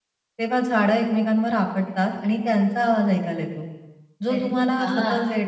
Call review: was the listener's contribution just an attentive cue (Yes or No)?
Yes